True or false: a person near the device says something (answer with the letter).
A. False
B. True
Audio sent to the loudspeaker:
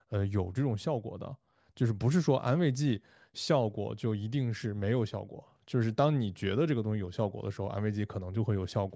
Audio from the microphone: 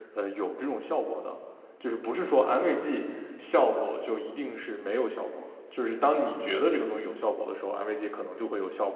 A